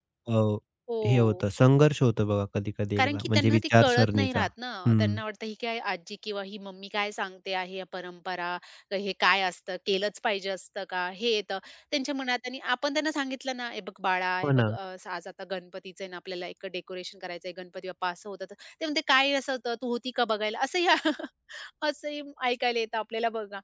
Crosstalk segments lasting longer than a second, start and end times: 3.0-4.4

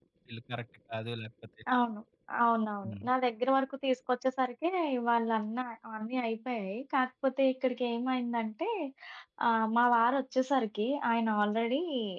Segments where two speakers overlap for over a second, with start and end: none

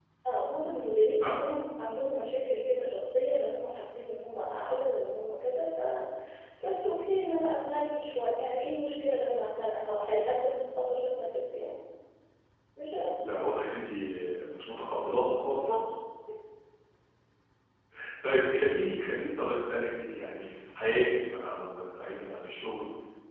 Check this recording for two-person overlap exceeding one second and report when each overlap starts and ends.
none

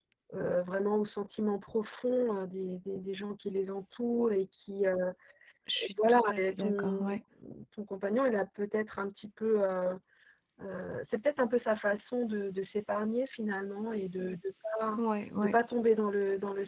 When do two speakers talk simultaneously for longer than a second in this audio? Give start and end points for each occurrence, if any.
5.8-7.2

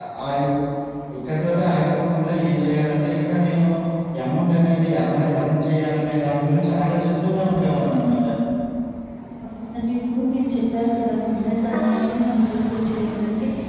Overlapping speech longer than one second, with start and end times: none

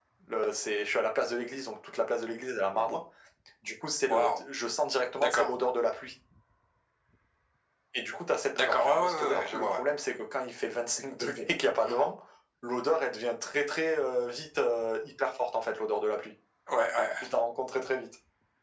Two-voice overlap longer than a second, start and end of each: 8.5-9.8

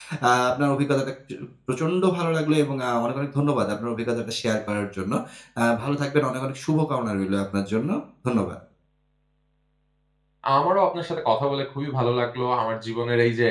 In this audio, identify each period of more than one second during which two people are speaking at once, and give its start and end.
none

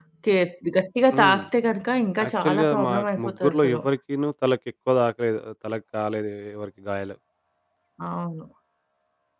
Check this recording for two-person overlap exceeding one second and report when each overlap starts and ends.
2.2-3.8

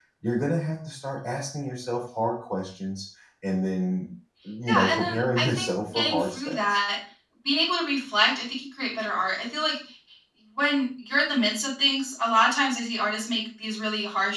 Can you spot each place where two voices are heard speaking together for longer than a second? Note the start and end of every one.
4.7-6.8

